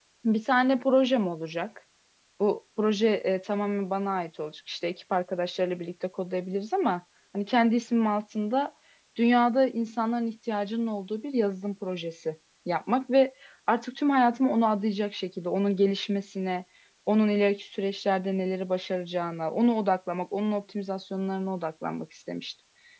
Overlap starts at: none

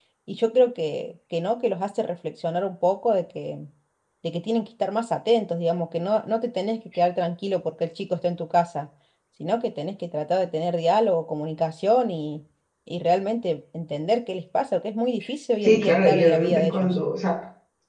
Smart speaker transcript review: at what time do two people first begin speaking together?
15.6 s

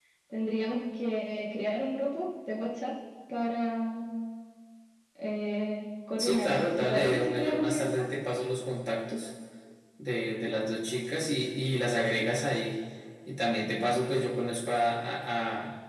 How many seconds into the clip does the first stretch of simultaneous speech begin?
6.2 s

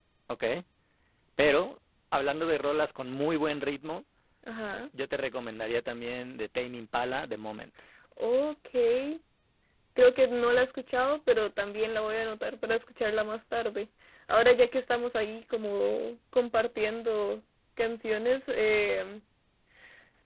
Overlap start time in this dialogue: none

